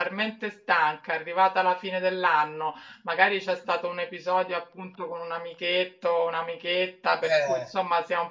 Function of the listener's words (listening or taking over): listening